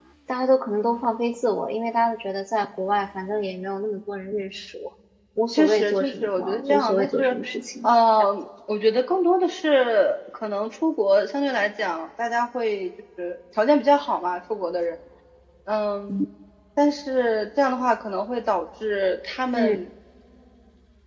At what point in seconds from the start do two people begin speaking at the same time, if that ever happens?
5.5 s

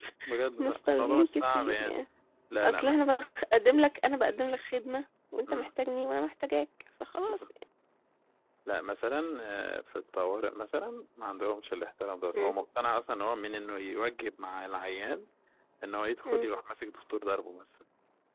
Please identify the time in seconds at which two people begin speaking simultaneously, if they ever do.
0.6 s

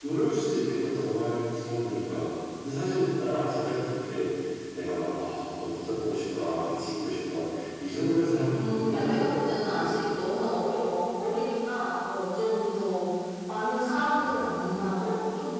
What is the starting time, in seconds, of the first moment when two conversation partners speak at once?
8.5 s

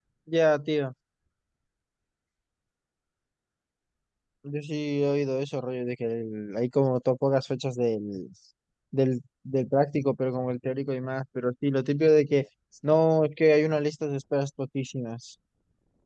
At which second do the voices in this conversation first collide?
none

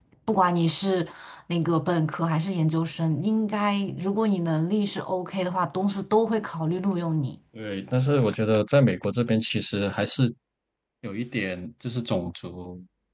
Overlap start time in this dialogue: none

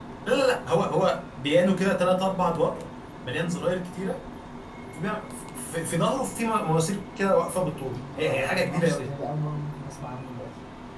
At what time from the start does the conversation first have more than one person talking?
7.8 s

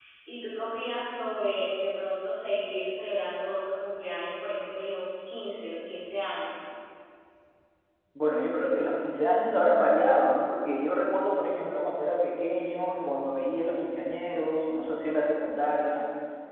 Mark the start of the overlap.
none

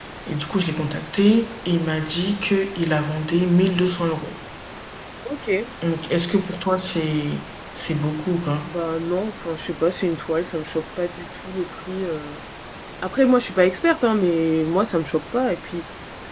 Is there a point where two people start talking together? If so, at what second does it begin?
none

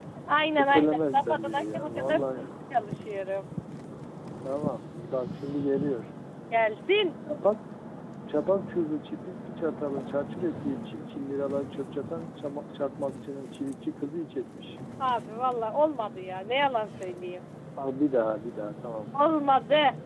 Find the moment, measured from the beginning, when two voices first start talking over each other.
0.5 s

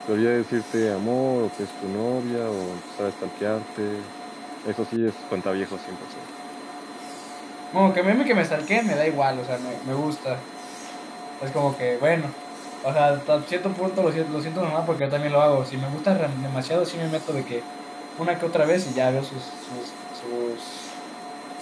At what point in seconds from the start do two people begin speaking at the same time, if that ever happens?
none

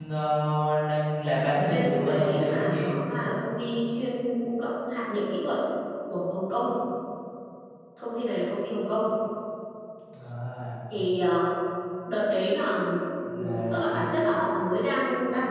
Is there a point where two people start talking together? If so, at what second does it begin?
1.6 s

